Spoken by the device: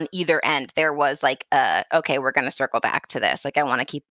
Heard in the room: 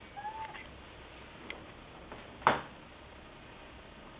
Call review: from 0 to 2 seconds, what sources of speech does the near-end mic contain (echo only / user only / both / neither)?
neither